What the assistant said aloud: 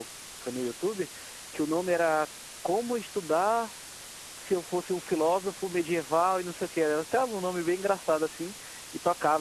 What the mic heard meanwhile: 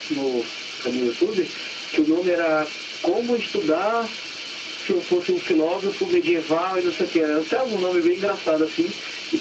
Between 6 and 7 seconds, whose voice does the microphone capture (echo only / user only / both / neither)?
echo only